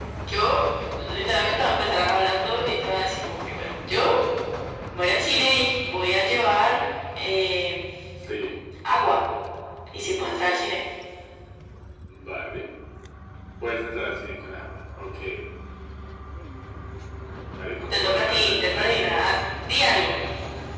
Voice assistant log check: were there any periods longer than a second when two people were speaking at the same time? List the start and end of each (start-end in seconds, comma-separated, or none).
17.9-19.1